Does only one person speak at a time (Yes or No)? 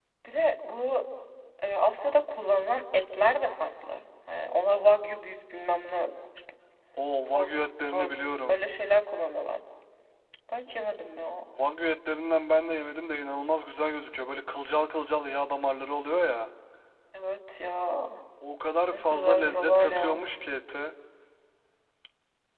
No